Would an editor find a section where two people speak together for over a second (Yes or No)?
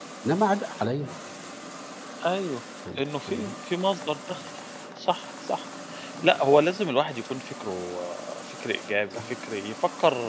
No